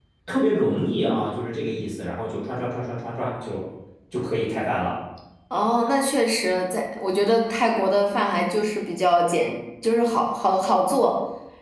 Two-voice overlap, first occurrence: none

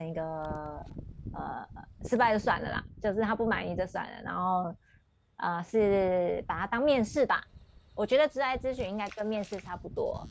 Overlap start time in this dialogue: none

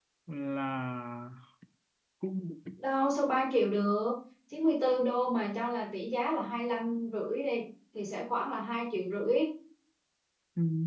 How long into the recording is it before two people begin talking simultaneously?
none

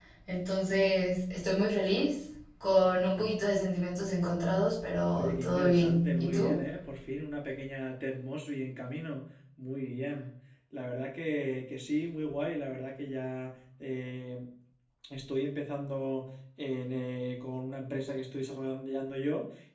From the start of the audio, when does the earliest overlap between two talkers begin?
5.2 s

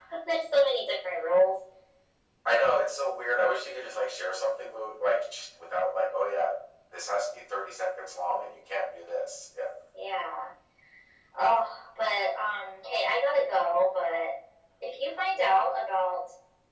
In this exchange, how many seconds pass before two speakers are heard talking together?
none

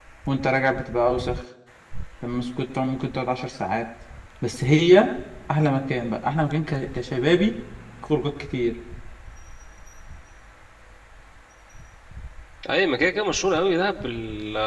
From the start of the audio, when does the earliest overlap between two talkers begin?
none

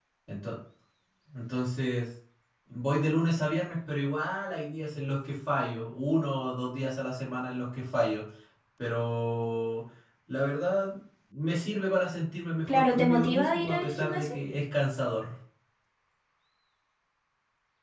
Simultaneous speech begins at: 12.7 s

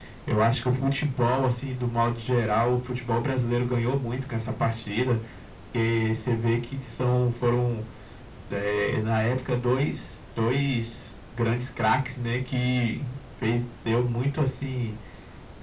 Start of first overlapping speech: none

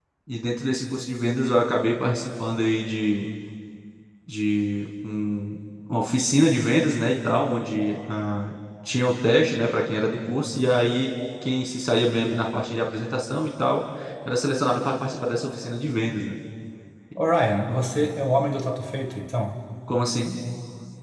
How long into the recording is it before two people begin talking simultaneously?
none

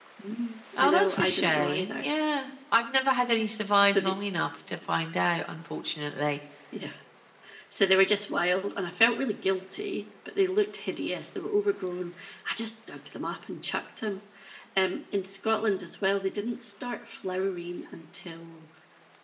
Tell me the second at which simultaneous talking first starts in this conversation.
0.8 s

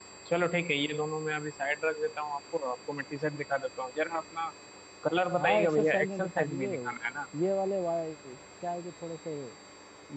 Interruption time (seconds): 5.4 s

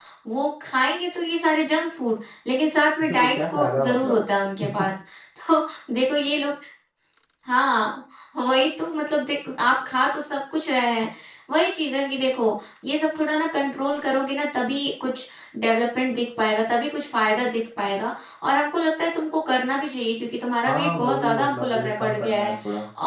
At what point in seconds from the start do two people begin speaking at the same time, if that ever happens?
3.0 s

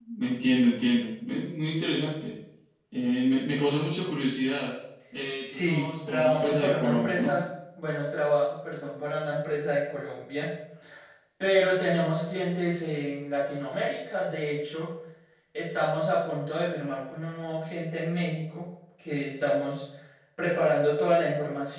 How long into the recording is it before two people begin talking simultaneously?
5.5 s

